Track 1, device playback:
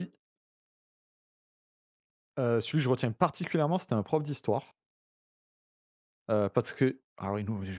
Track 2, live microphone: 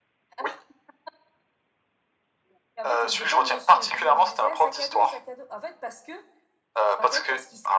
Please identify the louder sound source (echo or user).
echo